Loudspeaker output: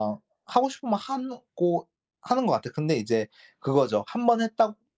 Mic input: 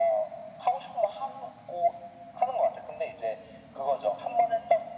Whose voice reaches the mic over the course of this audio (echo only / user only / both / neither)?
echo only